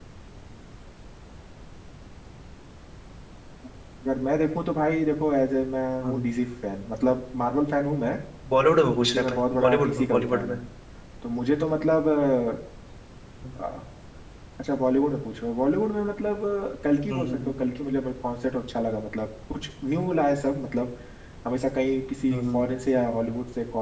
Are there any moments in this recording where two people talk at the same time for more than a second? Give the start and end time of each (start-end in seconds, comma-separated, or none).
9.0-10.6